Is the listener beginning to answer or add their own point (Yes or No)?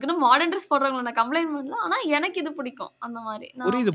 Yes